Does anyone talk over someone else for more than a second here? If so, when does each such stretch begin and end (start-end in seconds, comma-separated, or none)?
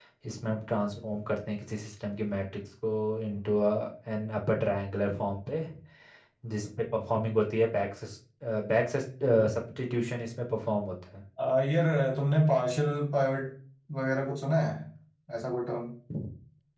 none